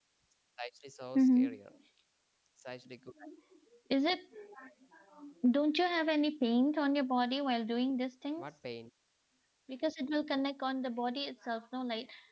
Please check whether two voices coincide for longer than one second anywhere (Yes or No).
No